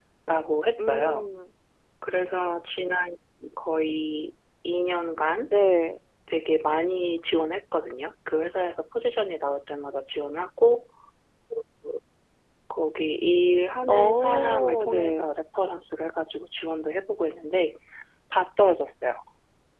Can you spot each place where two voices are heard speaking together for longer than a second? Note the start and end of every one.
13.9-15.2

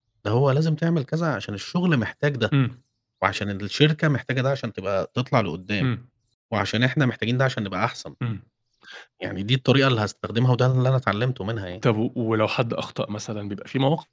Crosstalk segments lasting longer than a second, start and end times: none

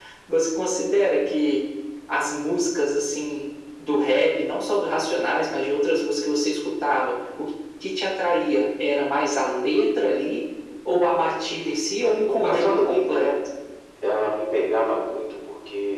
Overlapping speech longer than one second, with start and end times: 12.0-13.3

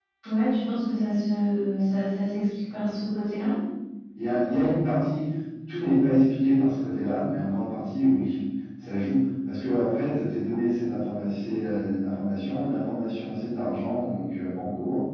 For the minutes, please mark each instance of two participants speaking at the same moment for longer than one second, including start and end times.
none

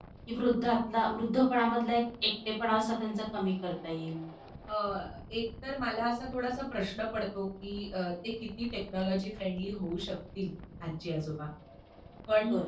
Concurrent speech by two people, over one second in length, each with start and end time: none

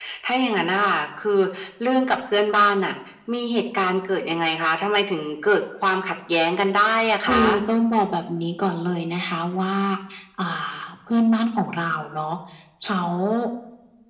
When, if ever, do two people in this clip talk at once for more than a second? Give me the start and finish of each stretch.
none

